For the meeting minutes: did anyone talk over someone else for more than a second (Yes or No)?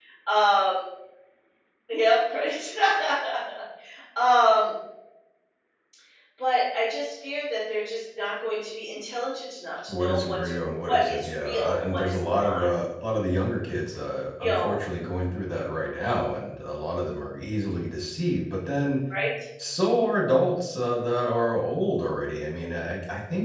Yes